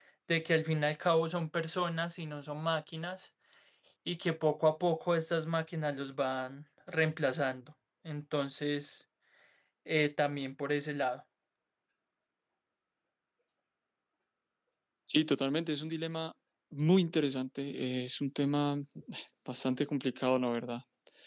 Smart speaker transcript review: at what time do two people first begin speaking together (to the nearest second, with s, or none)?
none